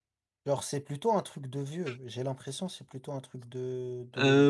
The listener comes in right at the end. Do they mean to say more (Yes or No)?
Yes